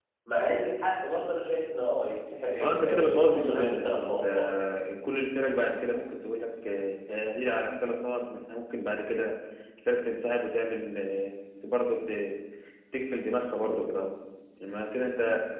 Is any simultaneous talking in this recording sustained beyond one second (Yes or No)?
Yes